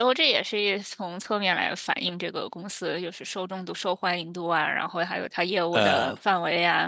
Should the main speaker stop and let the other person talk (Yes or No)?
No